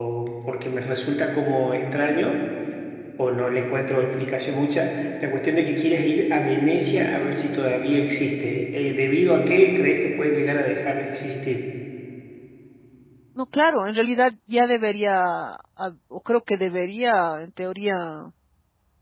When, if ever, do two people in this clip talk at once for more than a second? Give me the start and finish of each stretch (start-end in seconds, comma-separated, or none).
none